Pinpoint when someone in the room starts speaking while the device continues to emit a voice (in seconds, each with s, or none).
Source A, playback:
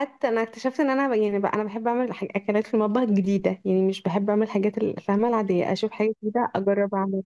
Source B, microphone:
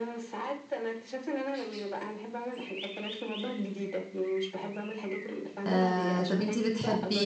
5.7 s